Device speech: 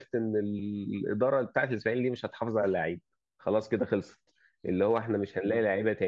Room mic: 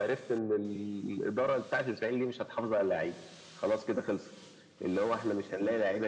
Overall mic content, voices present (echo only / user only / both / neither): echo only